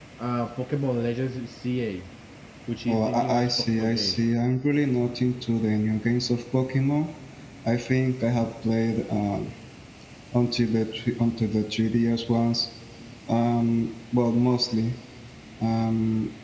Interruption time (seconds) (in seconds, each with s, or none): 2.9 s